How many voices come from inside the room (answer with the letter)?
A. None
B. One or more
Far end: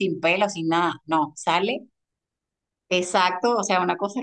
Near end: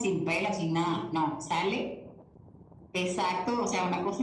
B